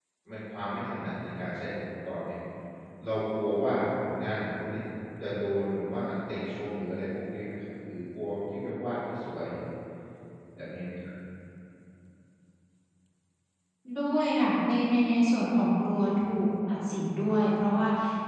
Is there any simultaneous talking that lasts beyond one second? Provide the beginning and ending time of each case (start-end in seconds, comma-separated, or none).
none